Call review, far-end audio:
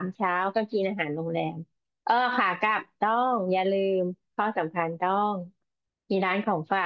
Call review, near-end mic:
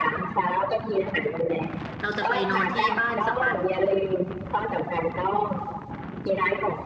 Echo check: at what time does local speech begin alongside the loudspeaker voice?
2.0 s

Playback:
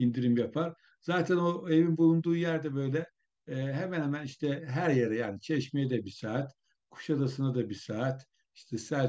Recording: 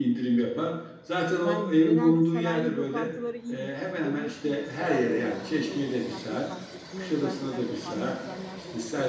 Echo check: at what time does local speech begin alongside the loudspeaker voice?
1.4 s

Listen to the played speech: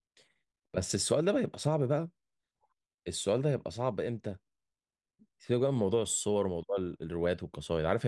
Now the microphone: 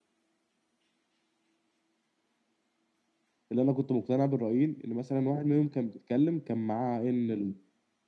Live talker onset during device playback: 3.5 s

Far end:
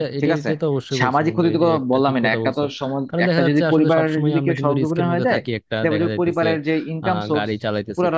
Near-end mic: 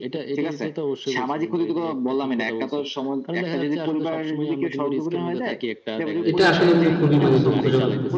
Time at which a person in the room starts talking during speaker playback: 6.3 s

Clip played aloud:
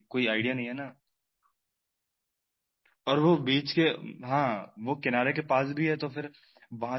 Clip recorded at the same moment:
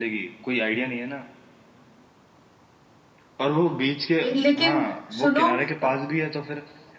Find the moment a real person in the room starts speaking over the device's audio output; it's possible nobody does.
4.2 s

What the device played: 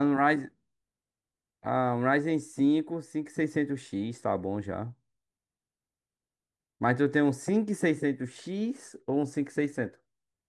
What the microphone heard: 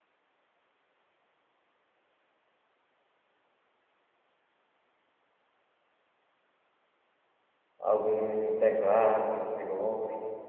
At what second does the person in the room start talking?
7.8 s

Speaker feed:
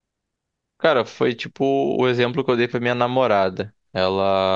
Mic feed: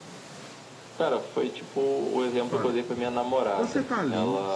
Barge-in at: 2.5 s

